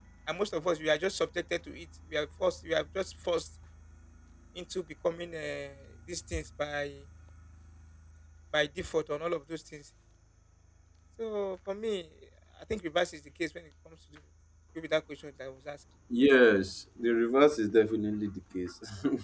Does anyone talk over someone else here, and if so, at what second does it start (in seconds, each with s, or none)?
none